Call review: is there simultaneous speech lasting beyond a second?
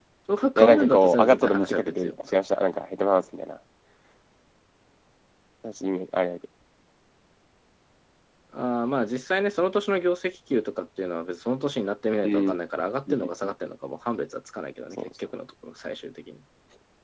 Yes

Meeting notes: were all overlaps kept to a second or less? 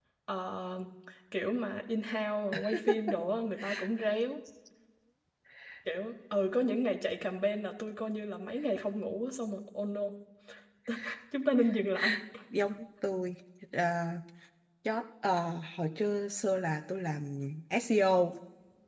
Yes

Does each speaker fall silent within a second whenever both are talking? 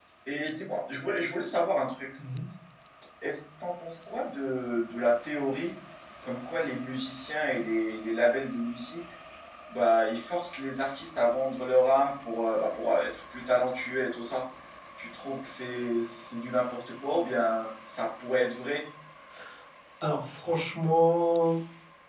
Yes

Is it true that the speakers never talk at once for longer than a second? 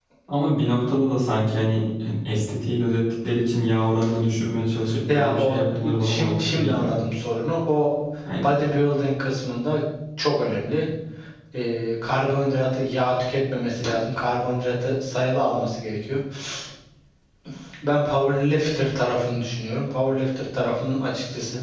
No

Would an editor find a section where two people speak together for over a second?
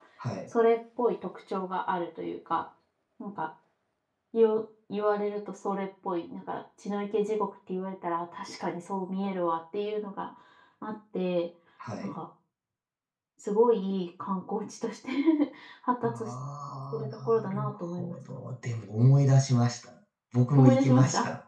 Yes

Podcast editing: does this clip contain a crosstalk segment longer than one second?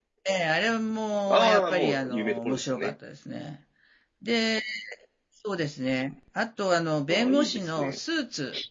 Yes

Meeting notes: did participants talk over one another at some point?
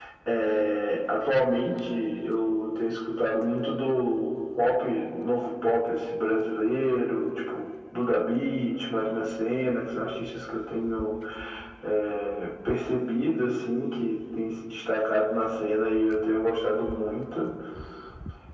No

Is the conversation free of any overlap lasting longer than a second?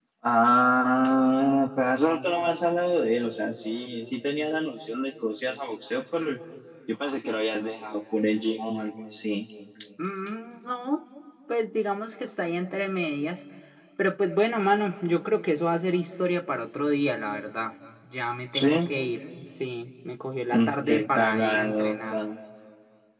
No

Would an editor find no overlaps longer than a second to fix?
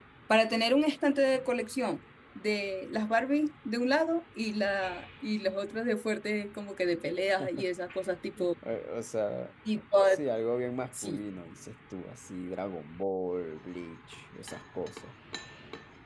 Yes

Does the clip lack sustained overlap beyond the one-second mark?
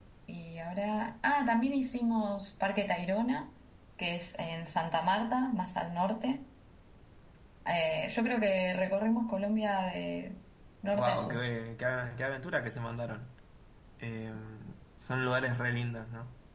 Yes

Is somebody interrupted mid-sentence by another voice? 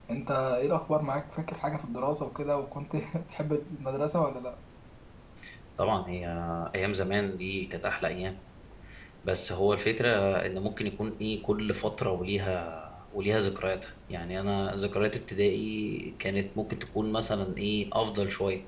No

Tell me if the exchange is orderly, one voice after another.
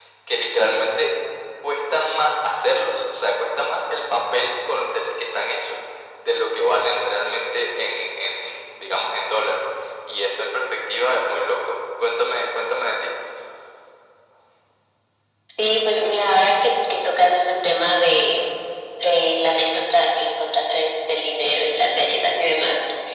Yes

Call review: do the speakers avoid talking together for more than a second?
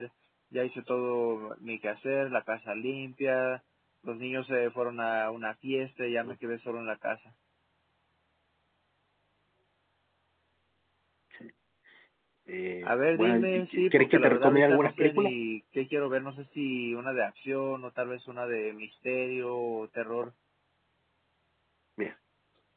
No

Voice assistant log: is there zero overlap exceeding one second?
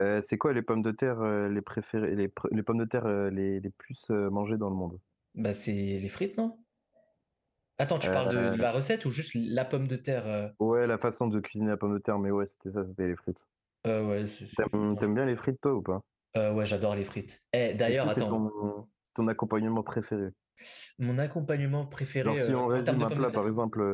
No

